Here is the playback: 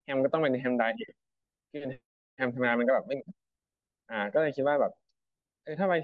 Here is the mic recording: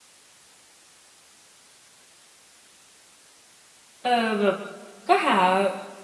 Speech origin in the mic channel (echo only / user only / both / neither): user only